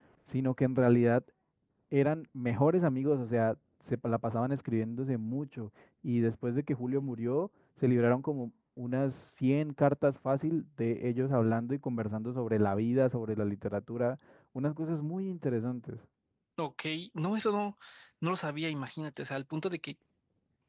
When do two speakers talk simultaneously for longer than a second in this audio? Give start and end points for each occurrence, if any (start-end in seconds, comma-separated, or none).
none